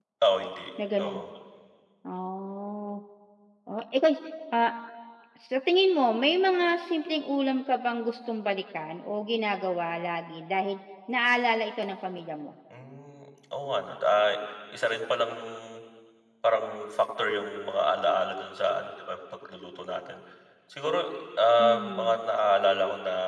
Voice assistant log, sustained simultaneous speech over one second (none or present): none